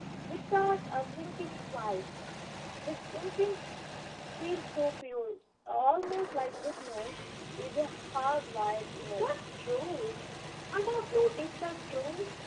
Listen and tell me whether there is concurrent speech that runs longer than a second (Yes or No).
No